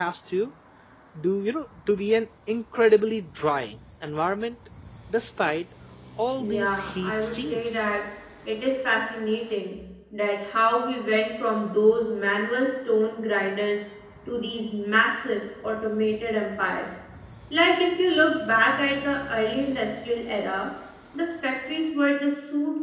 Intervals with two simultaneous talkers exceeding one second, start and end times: 6.4-7.8

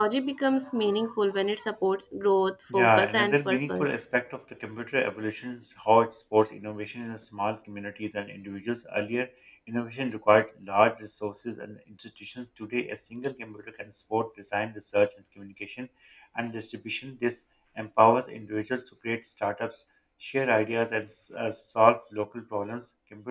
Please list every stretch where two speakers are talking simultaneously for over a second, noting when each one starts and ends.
2.7-4.0

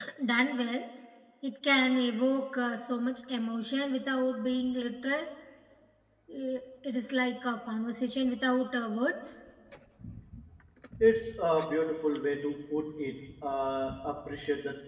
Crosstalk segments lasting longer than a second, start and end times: none

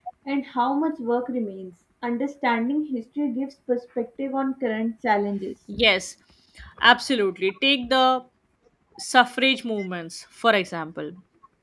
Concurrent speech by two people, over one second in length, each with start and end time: none

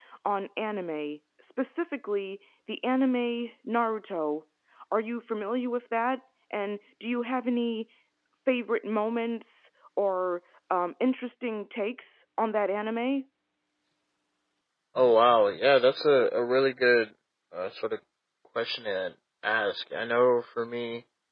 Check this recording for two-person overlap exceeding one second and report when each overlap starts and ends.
none

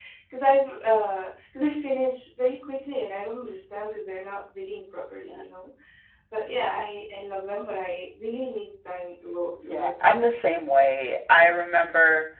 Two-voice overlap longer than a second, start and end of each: none

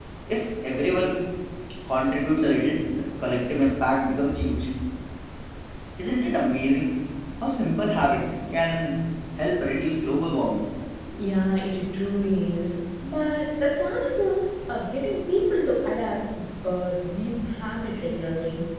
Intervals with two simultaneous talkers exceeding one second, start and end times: none

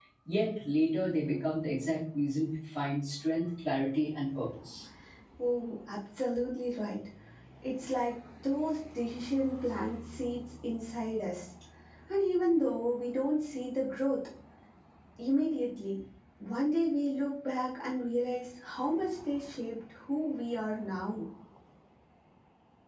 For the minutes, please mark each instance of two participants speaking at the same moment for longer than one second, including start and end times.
none

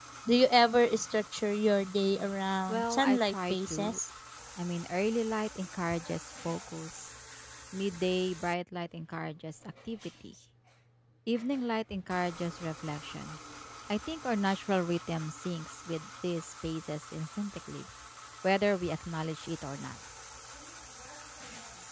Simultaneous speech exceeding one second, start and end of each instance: 2.7-4.0

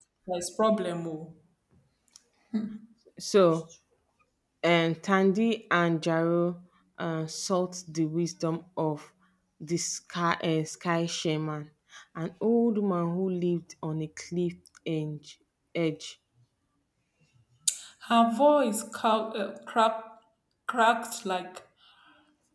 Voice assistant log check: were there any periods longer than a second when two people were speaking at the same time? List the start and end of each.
none

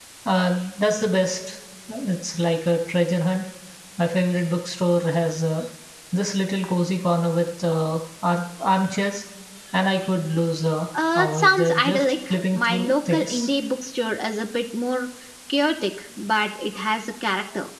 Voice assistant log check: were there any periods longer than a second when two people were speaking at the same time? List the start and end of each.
11.2-13.5

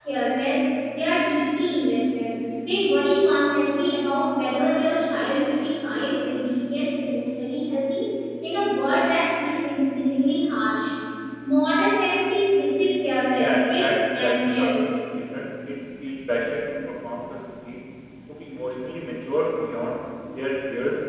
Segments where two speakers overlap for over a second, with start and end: 13.4-14.7

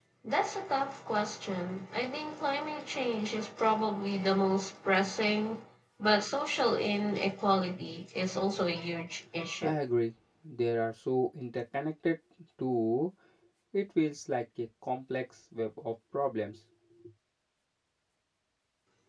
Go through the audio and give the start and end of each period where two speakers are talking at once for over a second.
none

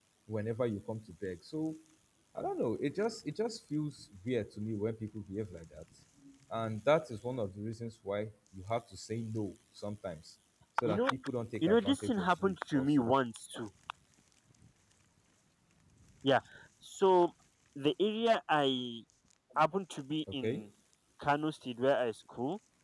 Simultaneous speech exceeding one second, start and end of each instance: 11.6-13.1

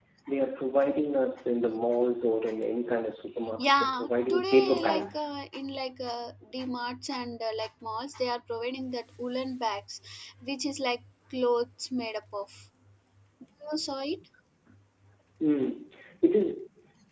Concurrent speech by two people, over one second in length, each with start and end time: 3.7-5.3

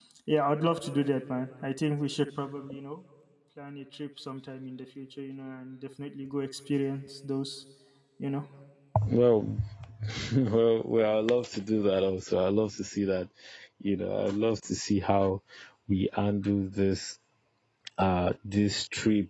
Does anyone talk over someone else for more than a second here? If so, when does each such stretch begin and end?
none

